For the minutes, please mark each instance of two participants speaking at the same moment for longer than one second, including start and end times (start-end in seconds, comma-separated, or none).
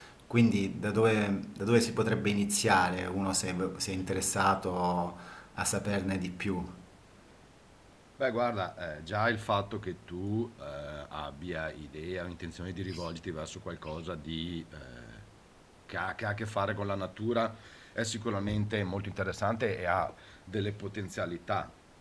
none